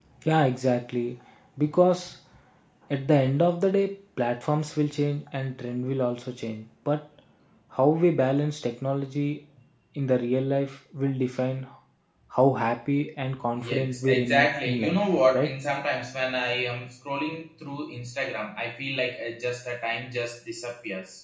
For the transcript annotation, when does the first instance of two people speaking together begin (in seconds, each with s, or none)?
13.5 s